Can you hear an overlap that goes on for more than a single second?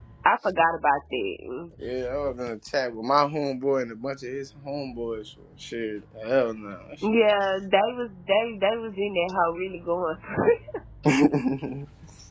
No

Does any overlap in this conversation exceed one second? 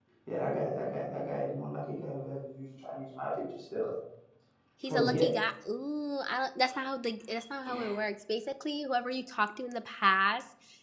No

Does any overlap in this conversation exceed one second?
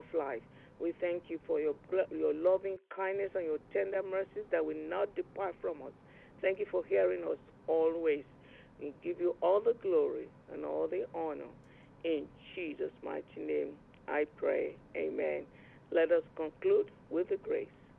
No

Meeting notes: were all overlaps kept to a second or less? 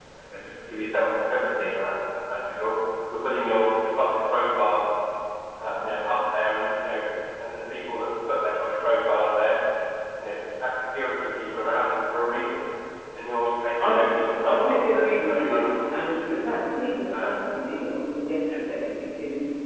No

